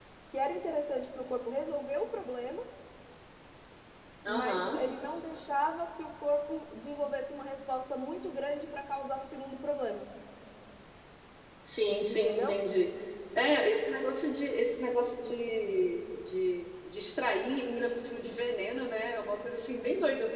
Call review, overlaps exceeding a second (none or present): none